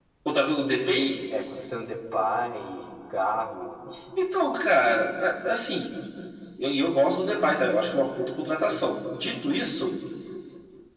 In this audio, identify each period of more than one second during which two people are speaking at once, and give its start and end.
none

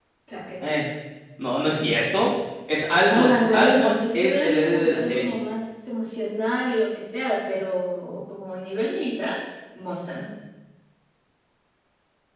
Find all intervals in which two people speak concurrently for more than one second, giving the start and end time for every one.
3.1-5.3

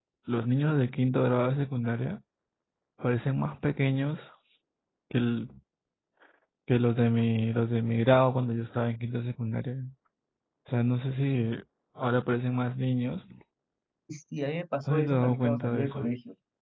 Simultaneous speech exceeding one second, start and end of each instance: 14.9-16.1

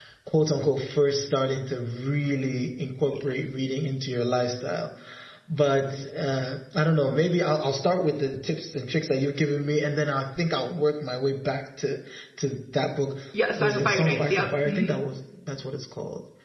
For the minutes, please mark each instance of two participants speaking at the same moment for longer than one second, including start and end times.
13.6-15.0

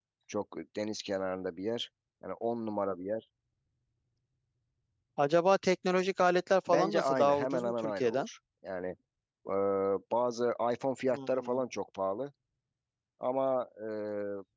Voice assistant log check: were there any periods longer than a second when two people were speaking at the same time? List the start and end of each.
6.7-8.3

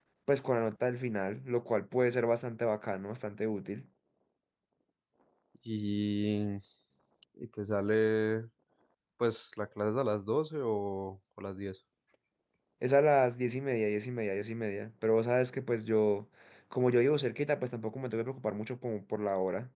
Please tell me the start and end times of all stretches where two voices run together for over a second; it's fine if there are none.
none

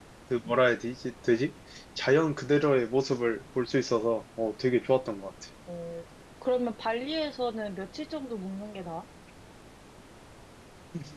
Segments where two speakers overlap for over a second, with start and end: none

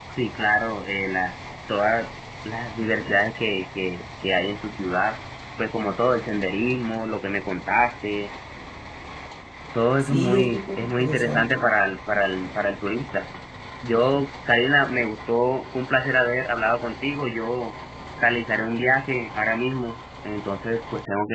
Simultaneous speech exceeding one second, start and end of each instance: 10.0-11.6

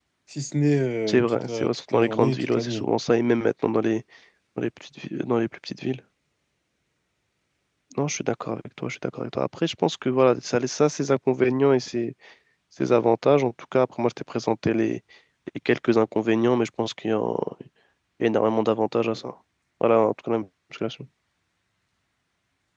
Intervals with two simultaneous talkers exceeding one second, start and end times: 1.1-2.9

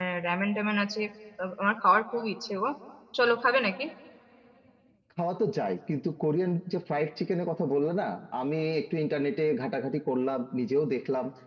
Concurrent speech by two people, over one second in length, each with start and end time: none

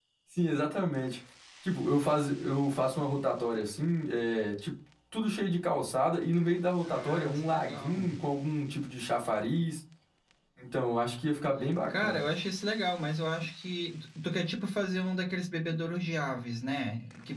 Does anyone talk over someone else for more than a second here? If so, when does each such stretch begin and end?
6.8-8.1

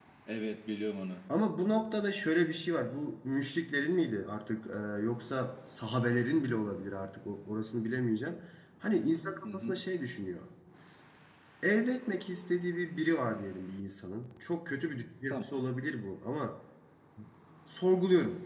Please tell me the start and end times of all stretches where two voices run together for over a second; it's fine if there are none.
none

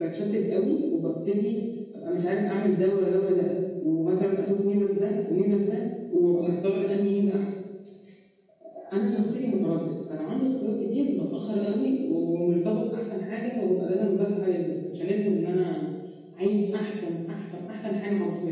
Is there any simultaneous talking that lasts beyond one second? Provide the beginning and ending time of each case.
none

